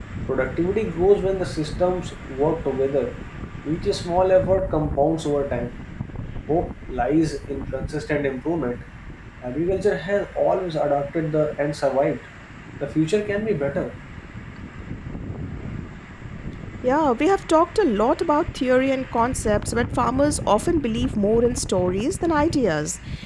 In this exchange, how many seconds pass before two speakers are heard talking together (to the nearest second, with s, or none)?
none